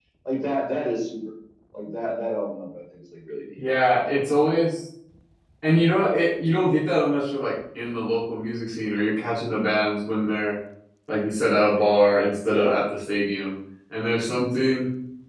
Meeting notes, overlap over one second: none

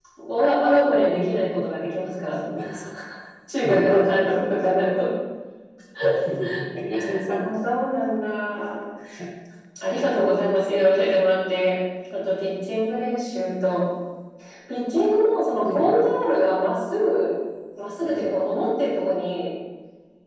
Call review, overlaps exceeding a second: none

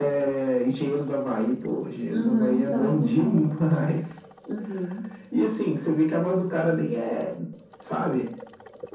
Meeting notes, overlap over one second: present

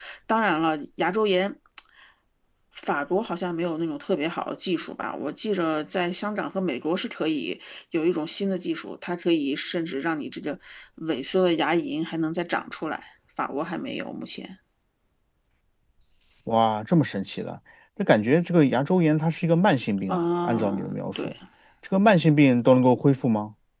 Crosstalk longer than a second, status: present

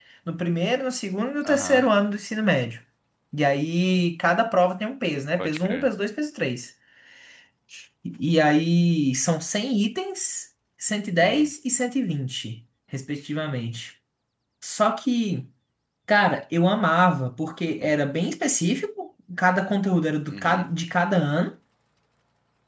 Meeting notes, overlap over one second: none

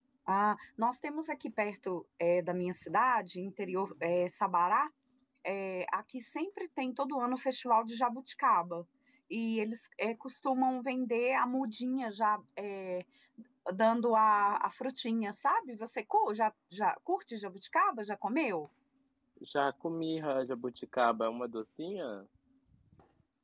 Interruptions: none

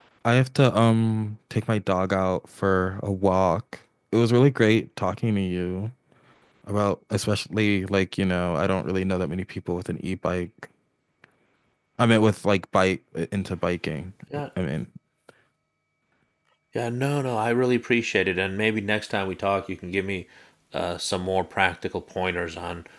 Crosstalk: none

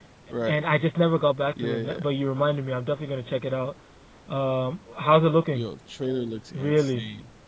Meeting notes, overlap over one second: none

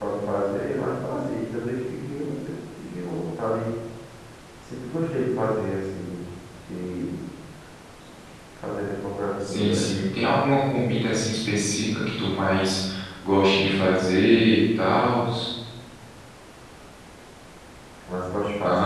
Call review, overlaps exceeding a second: none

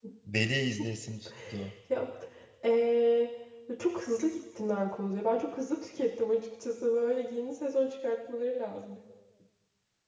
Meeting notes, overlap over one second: none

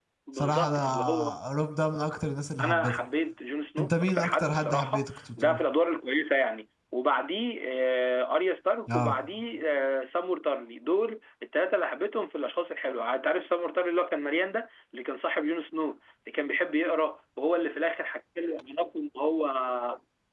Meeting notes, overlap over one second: present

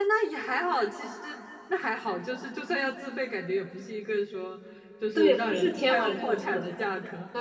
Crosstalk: present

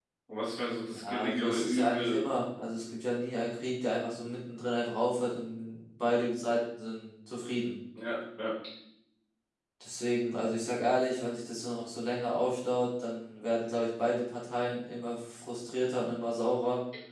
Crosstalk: present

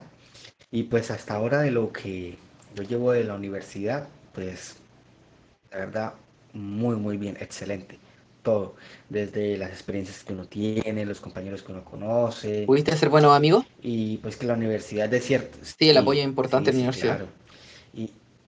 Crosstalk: present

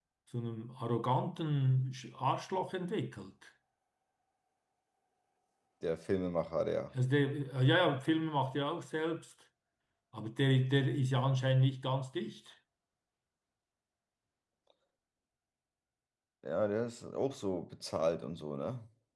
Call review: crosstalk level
none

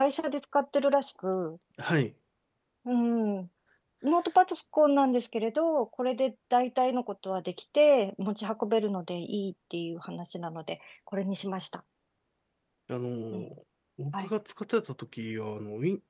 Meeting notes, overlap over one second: none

